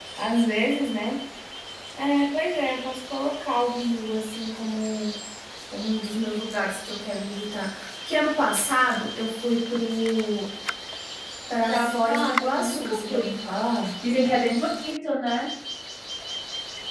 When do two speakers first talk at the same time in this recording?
11.7 s

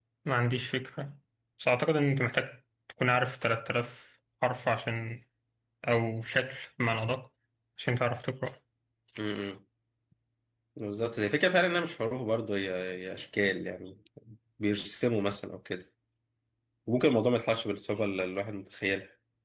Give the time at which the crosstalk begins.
none

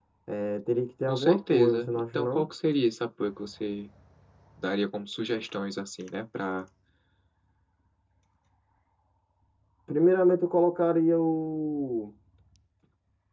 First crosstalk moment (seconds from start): 1.1 s

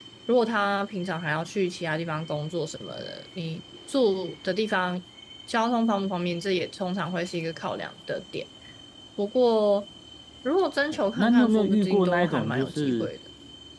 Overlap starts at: 11.1 s

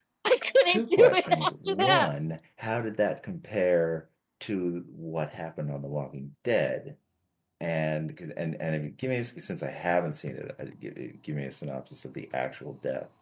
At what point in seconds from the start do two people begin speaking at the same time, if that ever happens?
0.7 s

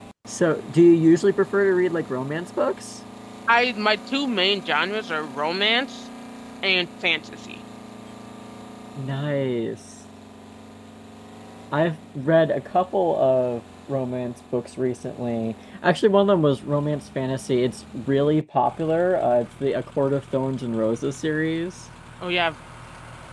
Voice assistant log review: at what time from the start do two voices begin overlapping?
none

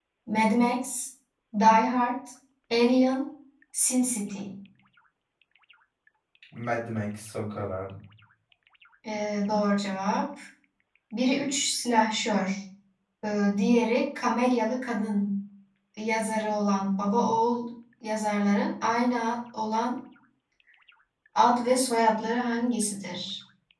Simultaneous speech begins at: none

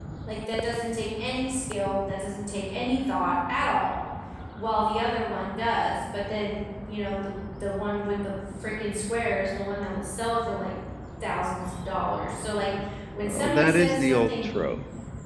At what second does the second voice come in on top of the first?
13.2 s

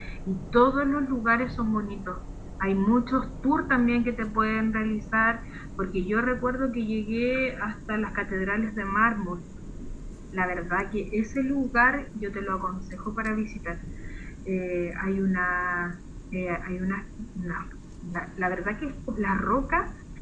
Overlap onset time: none

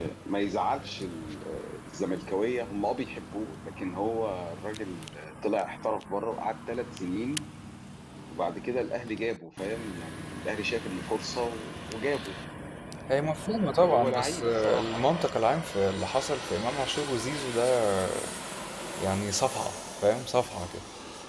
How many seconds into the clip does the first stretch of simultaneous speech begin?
13.8 s

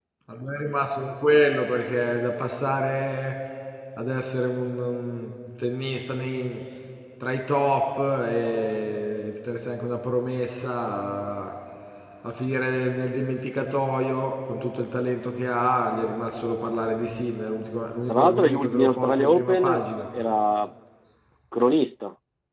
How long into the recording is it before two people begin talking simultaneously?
18.1 s

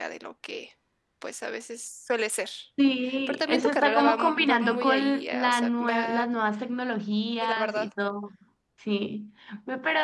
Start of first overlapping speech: 3.3 s

